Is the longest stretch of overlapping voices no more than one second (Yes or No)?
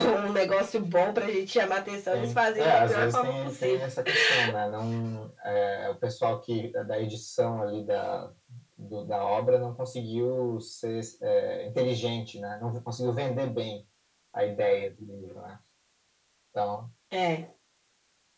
No